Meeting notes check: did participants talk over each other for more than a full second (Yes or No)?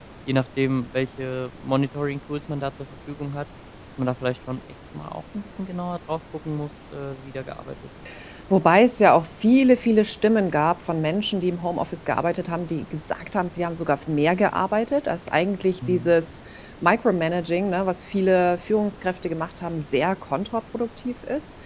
No